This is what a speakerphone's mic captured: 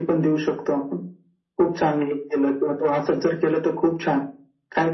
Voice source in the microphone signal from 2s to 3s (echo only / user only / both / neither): echo only